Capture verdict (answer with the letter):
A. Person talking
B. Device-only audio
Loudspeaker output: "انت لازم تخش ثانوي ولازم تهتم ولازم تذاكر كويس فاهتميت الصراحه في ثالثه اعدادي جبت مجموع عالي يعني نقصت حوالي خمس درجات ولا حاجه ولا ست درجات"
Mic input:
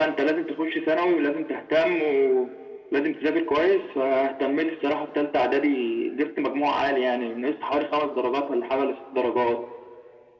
B